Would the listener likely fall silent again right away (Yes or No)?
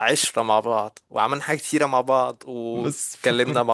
No